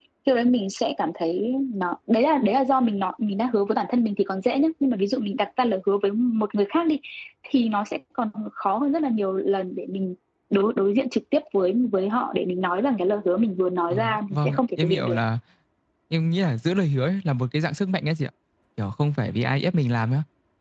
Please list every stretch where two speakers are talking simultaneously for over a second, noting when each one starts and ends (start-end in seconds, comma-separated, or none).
13.9-15.2